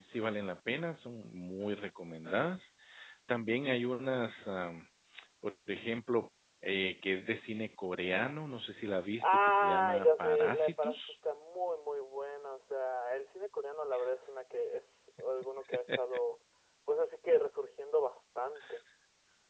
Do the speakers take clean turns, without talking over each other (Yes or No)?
No